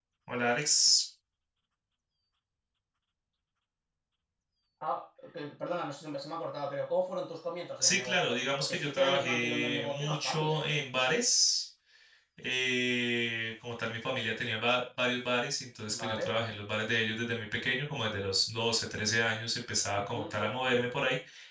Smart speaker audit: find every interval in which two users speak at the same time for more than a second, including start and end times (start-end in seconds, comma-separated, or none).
7.8-10.7